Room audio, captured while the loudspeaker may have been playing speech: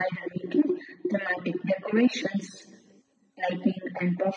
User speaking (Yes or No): No